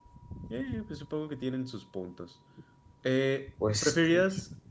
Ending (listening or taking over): listening